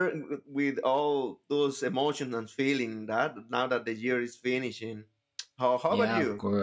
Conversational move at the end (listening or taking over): taking over